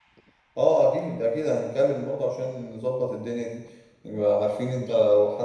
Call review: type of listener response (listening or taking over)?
listening